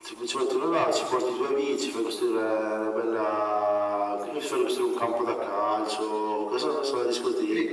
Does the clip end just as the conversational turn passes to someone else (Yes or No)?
Yes